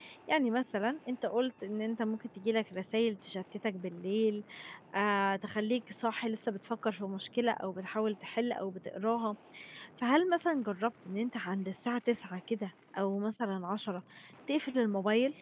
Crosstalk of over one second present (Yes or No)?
No